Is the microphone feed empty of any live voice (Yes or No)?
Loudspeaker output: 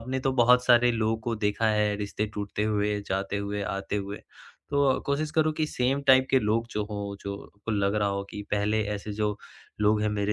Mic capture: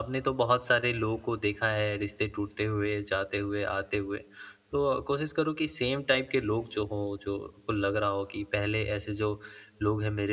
Yes